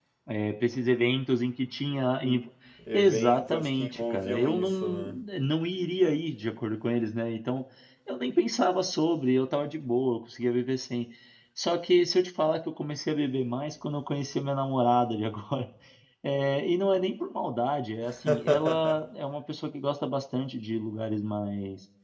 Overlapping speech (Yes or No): Yes